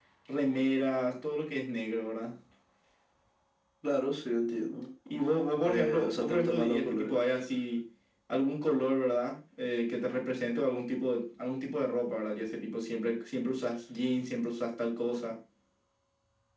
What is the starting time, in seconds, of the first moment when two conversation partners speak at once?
5.6 s

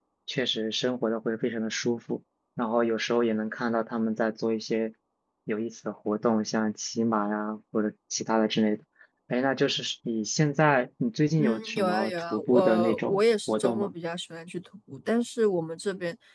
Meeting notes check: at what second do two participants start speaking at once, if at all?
11.4 s

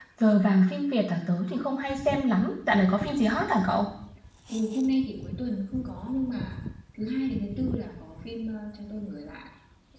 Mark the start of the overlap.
none

